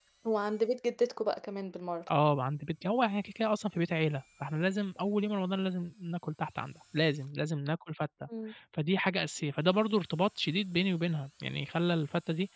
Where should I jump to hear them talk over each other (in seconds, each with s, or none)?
none